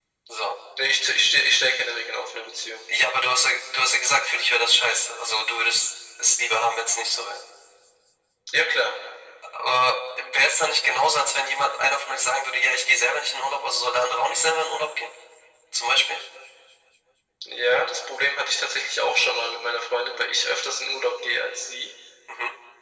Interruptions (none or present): none